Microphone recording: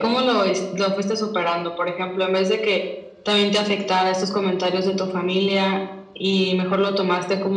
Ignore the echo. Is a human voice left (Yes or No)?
No